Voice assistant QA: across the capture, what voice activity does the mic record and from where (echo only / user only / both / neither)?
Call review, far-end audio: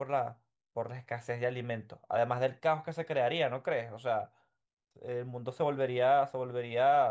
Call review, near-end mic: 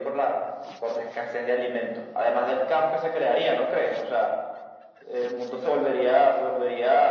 echo only